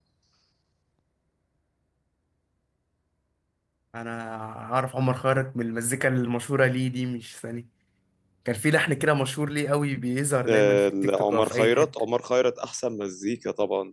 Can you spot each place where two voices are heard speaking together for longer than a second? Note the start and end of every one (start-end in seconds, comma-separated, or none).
10.5-11.9